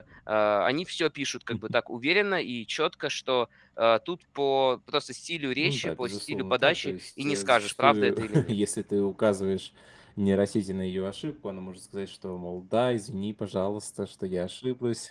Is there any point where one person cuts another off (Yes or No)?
Yes